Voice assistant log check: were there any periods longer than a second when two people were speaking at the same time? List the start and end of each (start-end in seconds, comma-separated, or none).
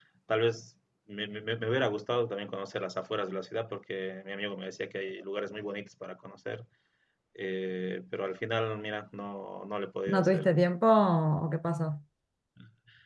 none